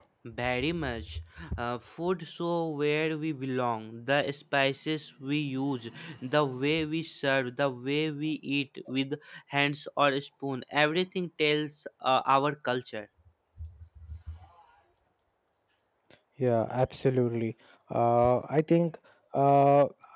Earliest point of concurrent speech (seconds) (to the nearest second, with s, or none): none